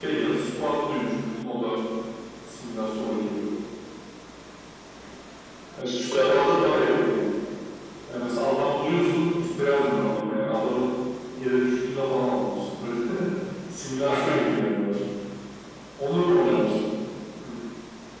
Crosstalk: present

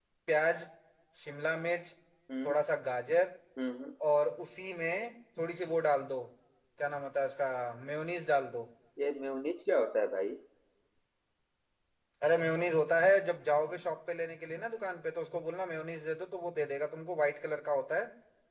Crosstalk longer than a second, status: none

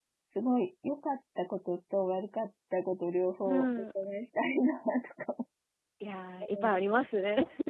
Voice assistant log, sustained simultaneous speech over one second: none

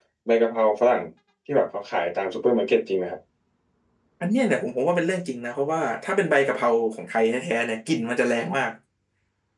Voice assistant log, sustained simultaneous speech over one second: none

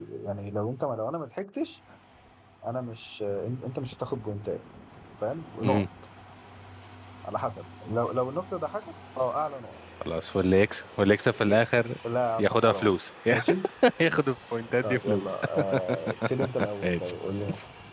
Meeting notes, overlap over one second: none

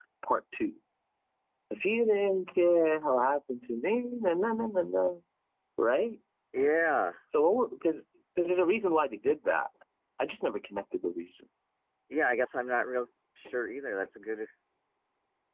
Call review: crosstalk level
none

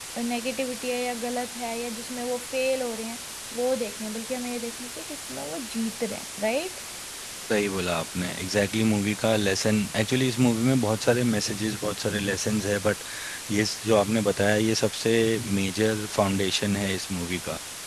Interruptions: none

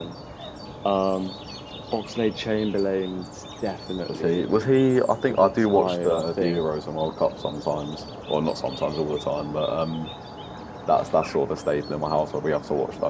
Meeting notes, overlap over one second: present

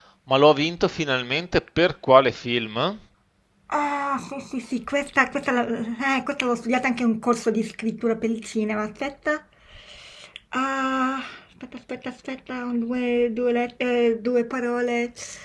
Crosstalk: none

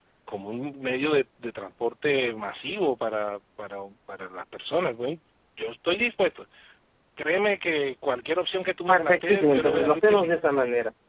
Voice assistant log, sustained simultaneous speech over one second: present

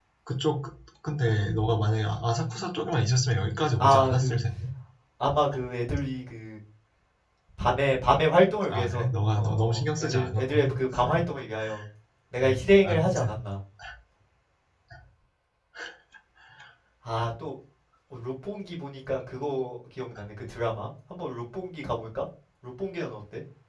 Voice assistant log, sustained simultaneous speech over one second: present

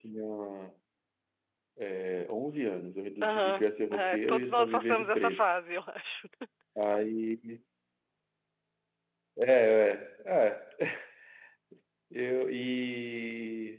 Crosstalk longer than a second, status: present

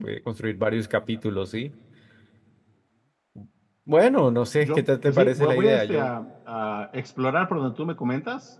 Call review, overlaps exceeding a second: present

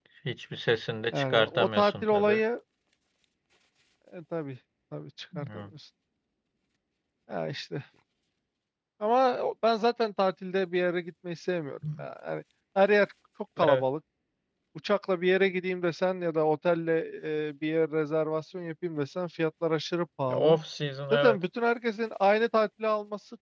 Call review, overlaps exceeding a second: present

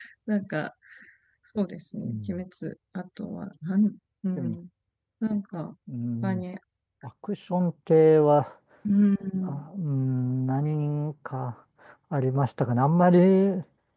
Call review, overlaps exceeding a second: none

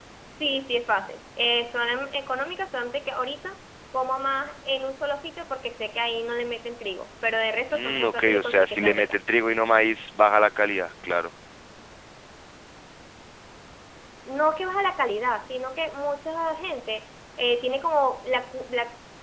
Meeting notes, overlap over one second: present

